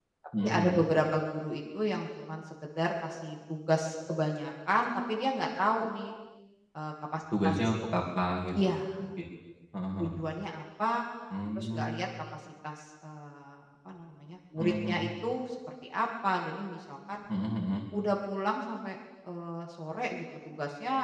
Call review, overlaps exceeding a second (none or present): none